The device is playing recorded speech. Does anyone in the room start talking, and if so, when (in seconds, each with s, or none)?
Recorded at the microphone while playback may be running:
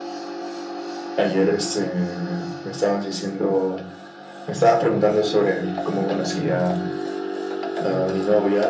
none